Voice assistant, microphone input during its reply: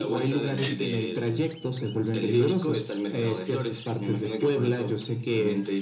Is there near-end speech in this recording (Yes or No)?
Yes